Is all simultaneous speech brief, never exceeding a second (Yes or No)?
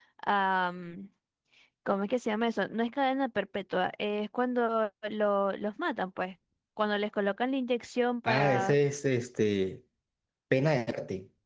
Yes